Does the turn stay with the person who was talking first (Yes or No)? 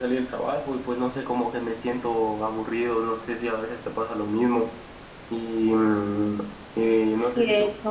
No